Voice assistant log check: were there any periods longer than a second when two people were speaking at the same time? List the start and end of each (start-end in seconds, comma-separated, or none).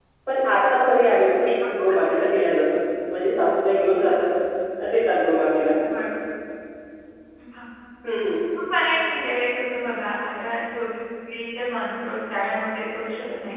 none